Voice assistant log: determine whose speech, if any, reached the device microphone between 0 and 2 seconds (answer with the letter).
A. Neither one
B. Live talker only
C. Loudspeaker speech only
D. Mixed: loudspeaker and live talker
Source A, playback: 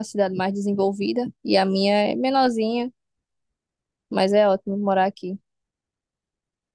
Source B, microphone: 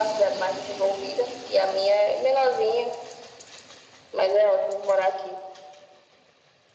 C